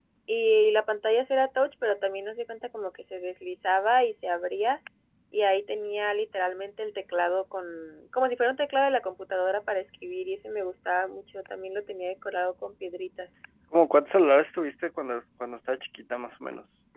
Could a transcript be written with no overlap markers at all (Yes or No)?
Yes